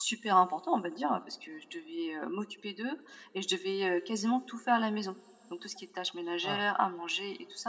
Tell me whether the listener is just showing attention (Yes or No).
Yes